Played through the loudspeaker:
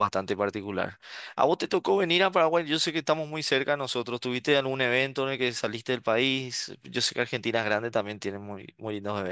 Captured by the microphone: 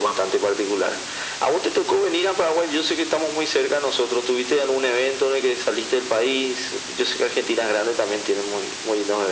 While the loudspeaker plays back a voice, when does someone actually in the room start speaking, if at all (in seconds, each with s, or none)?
none